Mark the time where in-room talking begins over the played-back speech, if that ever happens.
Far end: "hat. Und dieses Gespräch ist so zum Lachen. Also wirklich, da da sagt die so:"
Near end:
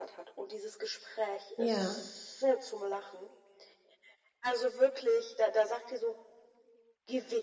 2 s

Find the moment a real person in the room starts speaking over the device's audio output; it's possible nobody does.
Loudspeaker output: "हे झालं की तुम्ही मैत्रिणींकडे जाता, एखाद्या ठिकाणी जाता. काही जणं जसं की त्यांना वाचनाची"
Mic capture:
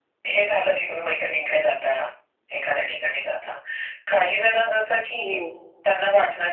5 s

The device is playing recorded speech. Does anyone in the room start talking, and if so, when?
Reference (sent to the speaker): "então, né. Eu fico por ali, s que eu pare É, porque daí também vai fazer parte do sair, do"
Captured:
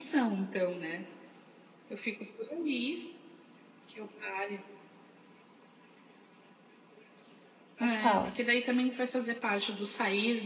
8 s

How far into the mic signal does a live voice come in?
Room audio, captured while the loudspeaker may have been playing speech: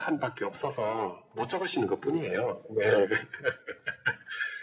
none

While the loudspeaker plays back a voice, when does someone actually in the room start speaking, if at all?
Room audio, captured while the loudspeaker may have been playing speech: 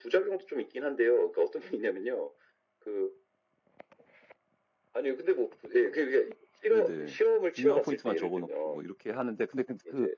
7 s

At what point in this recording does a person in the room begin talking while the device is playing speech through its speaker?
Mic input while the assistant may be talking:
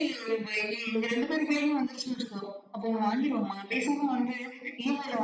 none

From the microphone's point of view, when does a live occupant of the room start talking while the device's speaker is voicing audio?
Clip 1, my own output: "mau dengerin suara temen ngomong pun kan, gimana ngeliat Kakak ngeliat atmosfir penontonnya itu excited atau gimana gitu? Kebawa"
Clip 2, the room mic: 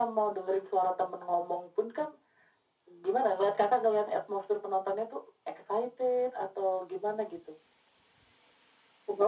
none

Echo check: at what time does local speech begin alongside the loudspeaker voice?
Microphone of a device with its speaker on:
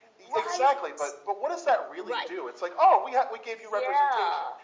2 s

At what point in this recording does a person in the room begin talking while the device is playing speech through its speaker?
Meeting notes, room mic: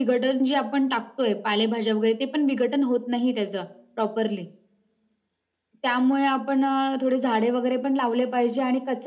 none

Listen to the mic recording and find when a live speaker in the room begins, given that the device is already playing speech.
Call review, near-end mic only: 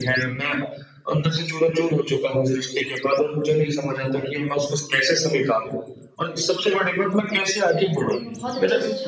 8 s

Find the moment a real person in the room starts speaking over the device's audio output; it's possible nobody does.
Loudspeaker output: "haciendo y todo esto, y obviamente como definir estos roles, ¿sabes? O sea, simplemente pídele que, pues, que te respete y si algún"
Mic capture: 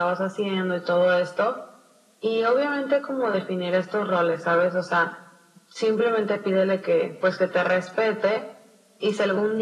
none

